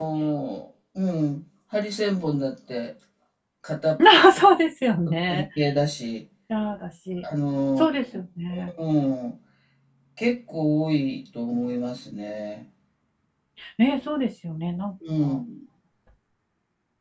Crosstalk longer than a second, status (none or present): none